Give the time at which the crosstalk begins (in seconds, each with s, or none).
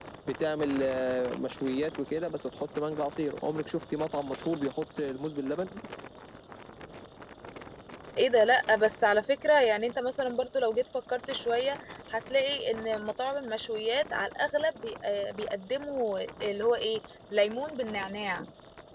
none